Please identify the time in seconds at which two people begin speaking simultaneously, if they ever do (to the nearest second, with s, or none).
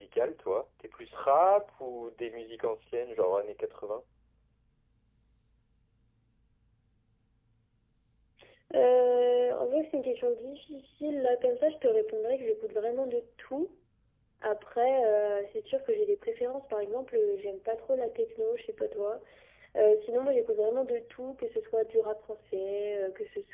none